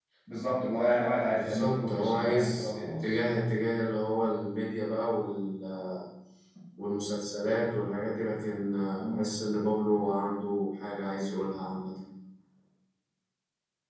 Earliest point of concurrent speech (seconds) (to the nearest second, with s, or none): 1 s